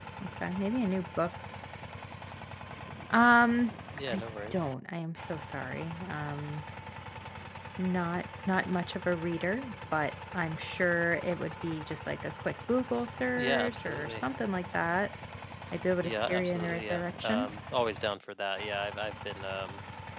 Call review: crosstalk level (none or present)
present